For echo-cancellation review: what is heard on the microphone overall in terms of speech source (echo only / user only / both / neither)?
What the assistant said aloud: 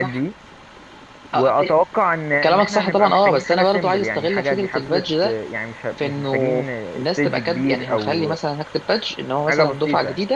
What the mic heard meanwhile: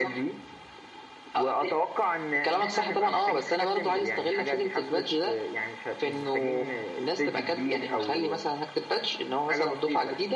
echo only